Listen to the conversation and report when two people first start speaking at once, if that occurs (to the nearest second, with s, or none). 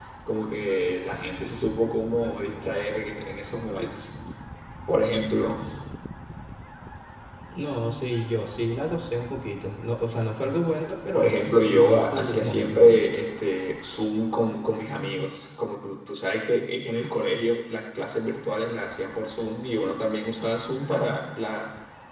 11 s